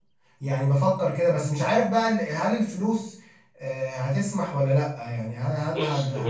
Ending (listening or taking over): taking over